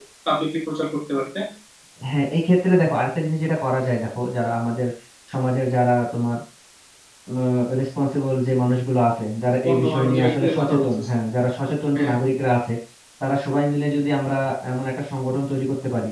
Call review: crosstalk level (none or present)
present